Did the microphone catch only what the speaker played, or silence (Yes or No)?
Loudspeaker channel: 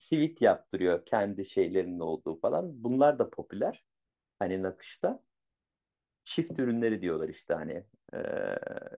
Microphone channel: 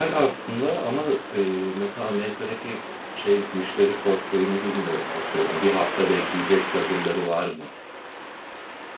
No